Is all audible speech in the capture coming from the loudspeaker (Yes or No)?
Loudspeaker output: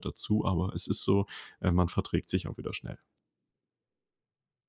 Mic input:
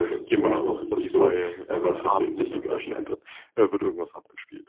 No